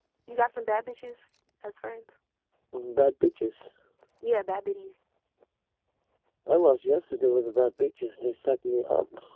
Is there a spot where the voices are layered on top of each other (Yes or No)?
No